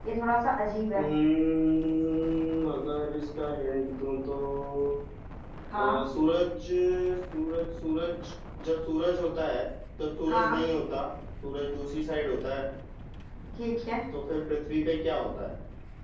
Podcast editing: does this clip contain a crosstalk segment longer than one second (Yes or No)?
No